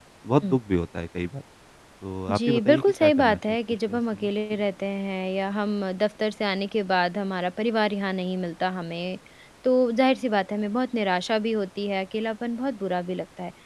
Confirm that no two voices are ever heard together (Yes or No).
No